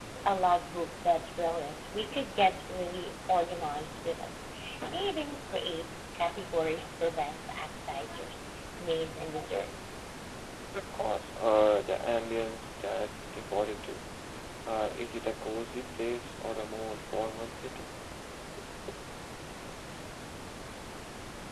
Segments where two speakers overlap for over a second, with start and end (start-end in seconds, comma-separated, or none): none